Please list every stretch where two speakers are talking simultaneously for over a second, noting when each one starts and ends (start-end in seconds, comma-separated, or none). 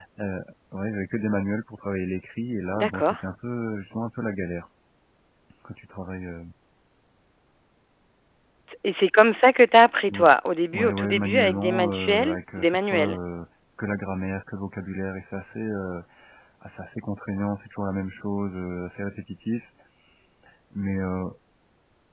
10.7-13.2